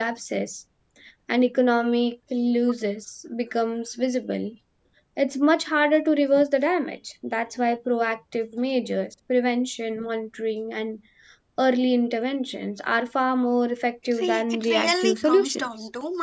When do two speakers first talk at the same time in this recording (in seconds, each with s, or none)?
14.2 s